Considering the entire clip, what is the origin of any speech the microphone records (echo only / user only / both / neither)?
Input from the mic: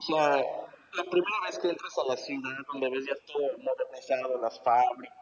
echo only